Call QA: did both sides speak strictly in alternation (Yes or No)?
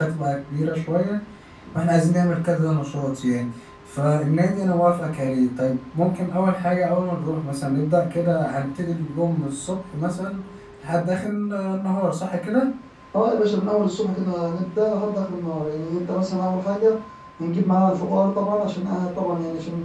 Yes